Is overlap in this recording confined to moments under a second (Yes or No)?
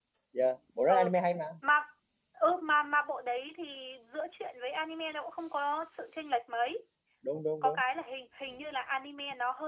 Yes